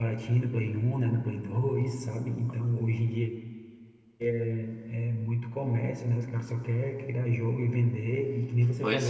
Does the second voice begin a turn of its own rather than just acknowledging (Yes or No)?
No